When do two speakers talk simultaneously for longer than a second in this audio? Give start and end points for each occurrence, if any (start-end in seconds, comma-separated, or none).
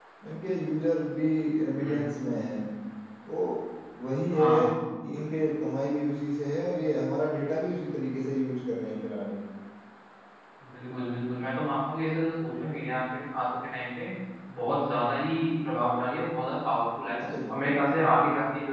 none